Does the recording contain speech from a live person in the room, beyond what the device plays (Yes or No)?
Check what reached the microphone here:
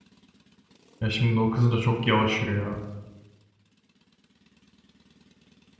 Yes